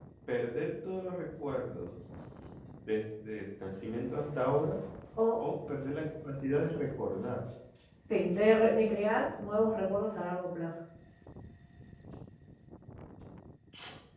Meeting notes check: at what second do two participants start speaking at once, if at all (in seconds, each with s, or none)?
none